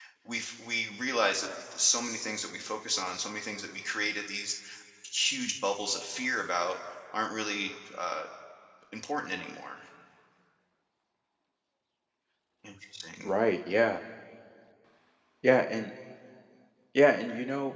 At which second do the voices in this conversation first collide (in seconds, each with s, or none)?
none